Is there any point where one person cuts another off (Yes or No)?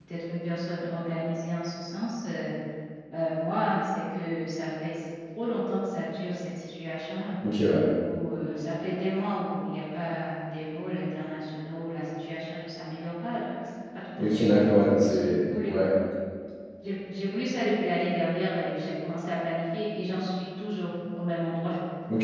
Yes